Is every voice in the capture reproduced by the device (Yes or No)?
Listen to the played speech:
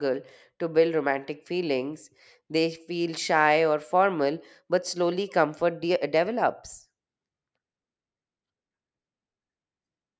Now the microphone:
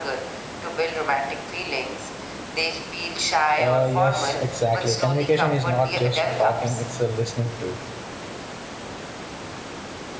No